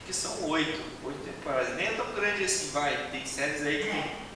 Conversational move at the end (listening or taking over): listening